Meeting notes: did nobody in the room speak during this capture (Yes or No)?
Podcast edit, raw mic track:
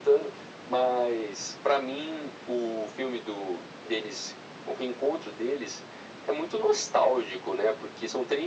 Yes